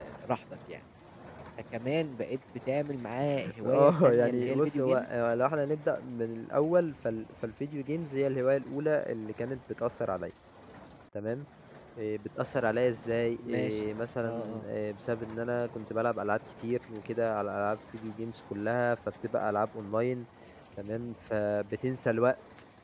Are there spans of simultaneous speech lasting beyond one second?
Yes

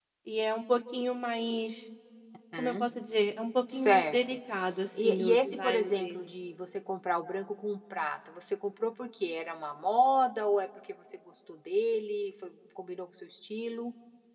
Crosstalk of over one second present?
Yes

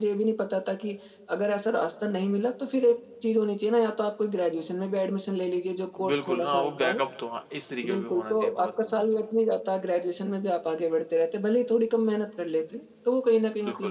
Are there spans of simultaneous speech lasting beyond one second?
Yes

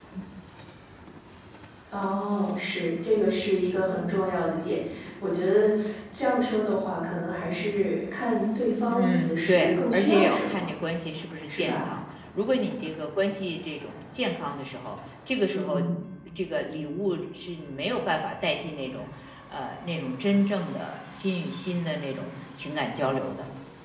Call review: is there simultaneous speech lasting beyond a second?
Yes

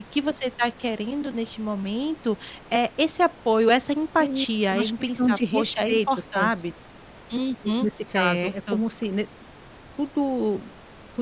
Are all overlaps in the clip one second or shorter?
No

